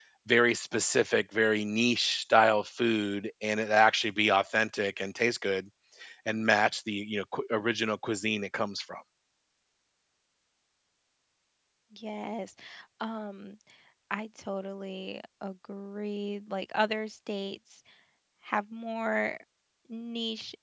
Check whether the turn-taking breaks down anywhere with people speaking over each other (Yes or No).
No